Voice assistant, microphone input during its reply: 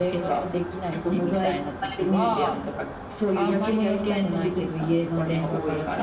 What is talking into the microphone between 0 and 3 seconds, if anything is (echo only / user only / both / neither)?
both